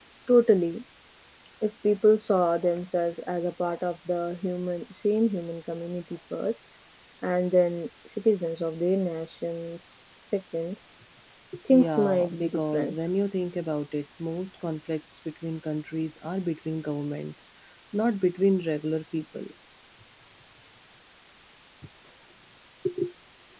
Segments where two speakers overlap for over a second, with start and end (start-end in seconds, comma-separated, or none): 11.7-12.9